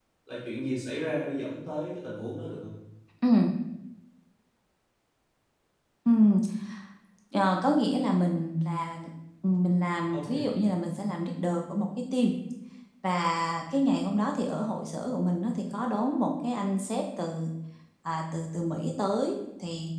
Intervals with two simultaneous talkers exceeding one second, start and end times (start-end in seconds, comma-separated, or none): none